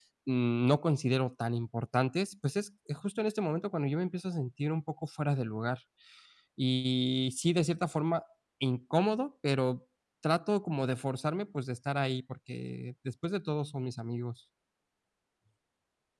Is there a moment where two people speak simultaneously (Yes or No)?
No